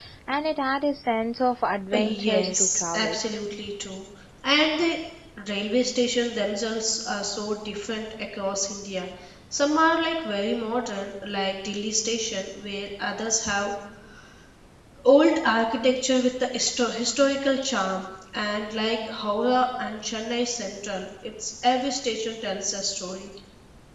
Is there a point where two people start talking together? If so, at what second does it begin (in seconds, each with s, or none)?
1.9 s